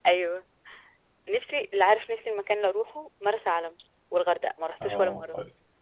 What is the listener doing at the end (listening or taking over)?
taking over